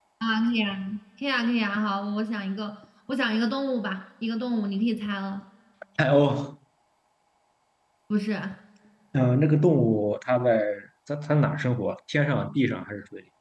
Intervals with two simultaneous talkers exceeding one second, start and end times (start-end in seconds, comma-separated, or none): none